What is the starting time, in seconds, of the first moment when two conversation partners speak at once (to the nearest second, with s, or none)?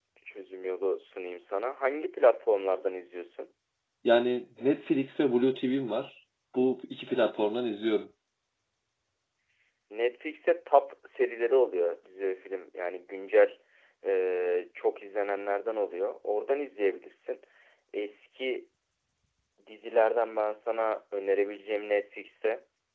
none